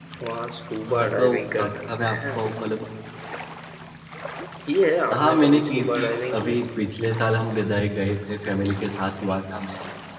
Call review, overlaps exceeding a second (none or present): present